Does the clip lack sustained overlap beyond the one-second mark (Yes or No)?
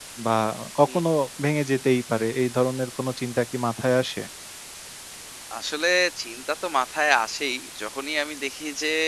Yes